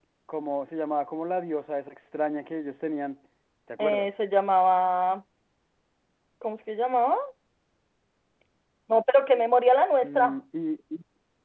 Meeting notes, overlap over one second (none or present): none